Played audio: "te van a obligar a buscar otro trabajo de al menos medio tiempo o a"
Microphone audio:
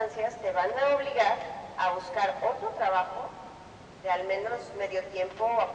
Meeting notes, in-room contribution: none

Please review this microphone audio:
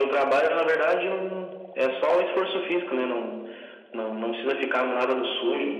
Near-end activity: none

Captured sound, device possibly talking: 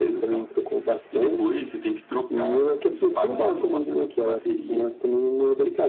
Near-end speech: none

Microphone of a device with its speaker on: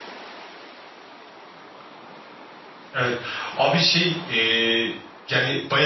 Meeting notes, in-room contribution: present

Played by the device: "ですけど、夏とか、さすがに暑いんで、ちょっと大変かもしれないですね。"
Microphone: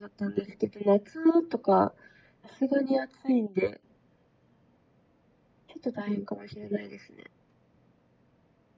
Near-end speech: none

